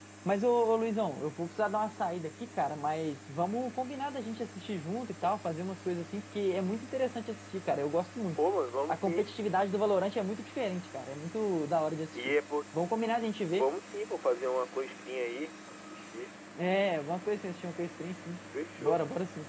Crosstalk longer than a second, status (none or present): none